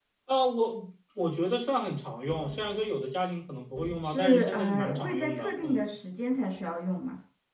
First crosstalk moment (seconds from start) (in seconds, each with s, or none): 4.0 s